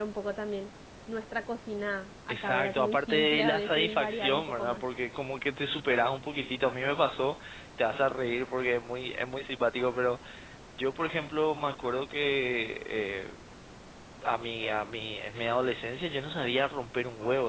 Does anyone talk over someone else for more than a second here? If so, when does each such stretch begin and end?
2.3-4.8

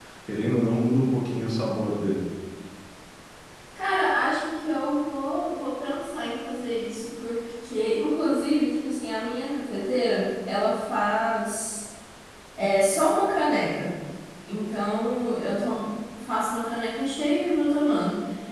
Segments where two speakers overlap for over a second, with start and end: none

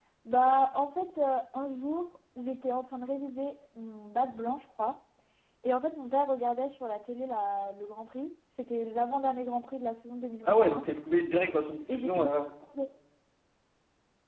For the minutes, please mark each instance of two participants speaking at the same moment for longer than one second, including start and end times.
none

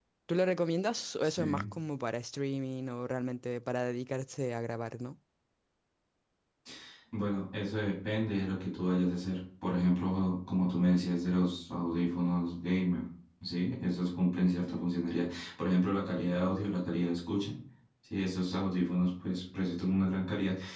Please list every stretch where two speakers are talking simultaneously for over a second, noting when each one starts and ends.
none

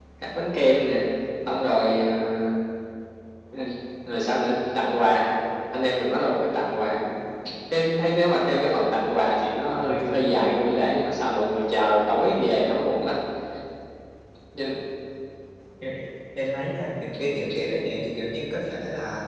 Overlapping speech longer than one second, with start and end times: none

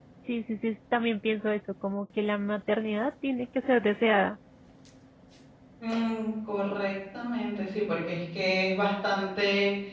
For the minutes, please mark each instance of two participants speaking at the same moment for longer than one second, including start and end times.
none

